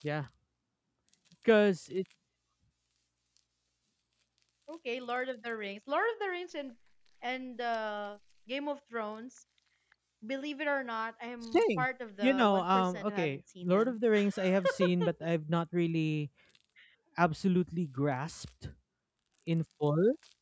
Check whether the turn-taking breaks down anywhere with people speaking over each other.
Yes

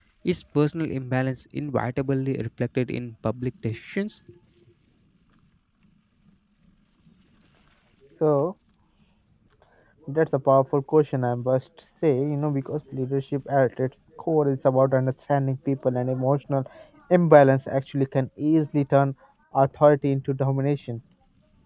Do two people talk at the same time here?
No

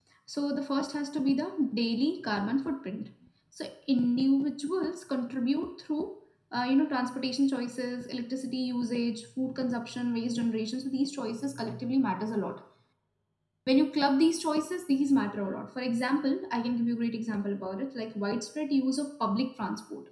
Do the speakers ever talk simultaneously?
No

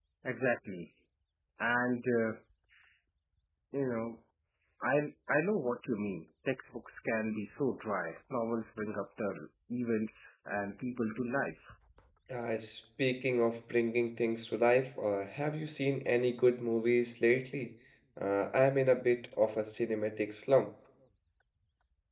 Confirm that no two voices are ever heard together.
Yes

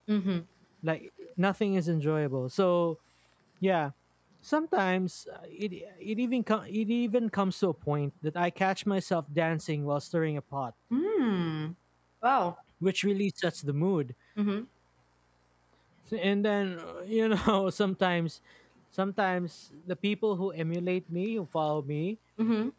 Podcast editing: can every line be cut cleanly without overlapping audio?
Yes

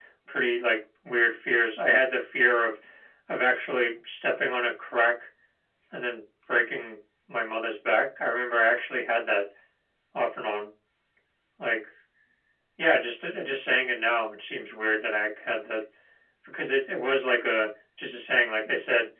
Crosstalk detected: No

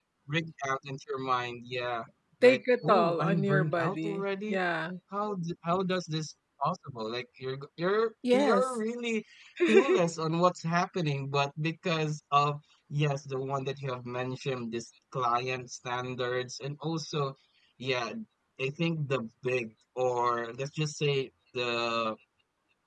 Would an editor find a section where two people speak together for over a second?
Yes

